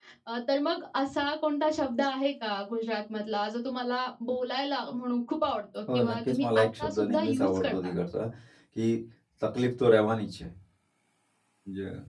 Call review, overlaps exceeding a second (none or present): present